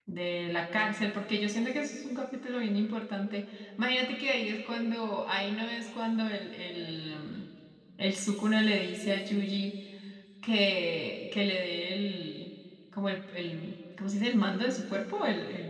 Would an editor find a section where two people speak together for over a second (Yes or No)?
No